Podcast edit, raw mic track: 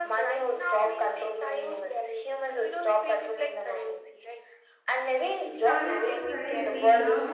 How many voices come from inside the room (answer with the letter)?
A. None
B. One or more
B